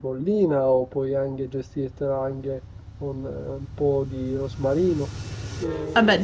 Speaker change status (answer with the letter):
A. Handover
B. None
B